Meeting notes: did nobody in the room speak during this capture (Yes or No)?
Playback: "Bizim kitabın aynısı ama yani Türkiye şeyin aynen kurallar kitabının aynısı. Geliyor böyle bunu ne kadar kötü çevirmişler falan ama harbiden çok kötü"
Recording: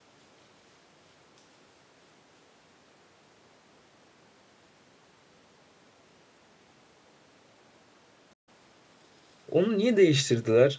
No